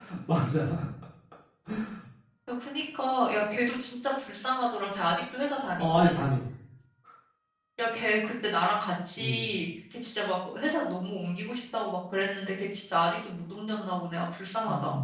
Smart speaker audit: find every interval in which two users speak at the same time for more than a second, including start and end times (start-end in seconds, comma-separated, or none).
none